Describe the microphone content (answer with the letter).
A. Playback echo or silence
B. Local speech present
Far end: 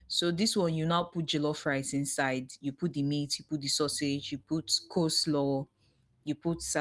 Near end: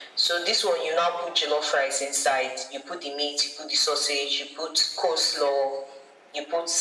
A